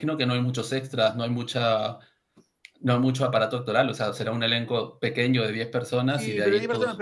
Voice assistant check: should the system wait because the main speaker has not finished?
No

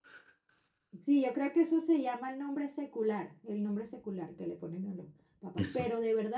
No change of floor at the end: Yes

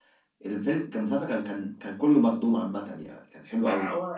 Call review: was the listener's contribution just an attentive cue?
No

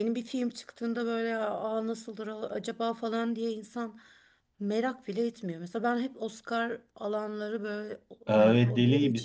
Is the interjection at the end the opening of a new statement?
Yes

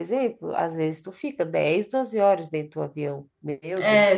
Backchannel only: No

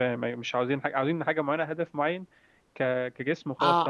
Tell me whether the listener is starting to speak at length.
Yes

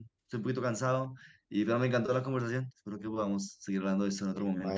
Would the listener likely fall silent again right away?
No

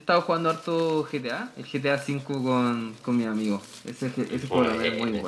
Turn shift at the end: No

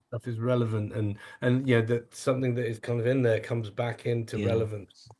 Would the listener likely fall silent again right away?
No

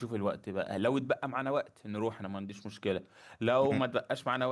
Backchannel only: Yes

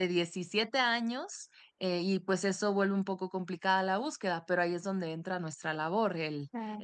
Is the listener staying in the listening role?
Yes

